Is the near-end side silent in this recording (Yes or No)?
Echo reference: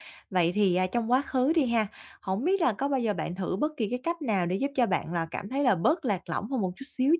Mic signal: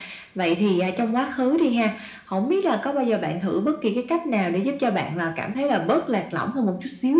Yes